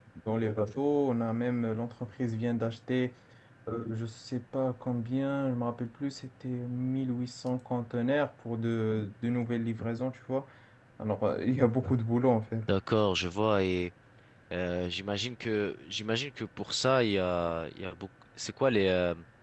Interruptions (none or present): none